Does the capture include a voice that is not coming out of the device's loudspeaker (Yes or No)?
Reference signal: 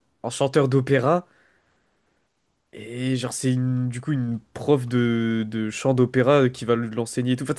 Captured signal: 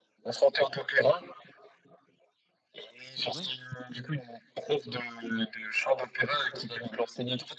Yes